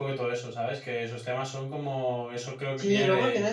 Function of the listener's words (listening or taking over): taking over